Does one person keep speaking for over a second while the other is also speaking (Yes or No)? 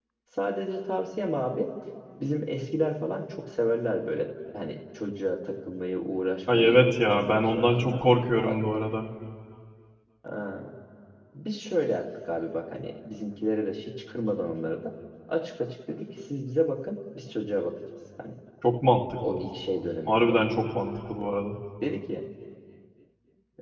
Yes